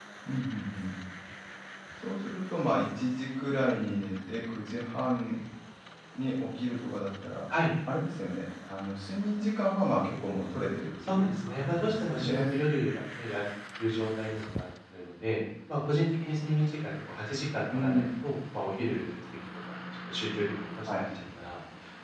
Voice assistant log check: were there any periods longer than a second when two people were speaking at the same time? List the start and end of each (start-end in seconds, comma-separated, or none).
11.1-12.6